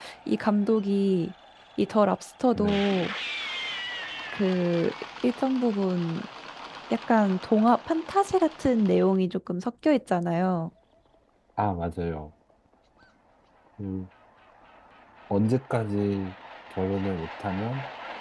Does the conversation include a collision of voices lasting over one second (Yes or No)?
No